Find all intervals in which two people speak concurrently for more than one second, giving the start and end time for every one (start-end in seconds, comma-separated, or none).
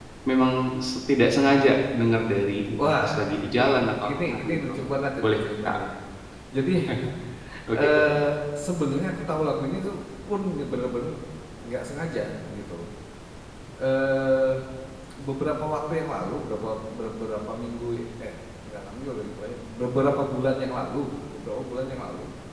2.8-4.7